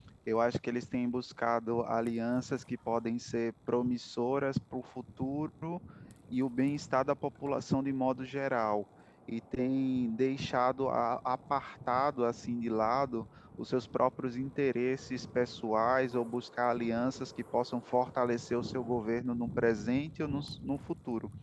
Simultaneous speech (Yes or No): No